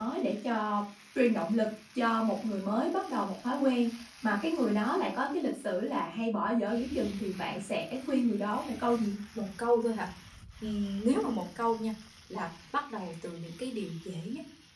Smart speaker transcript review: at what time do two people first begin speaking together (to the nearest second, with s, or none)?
none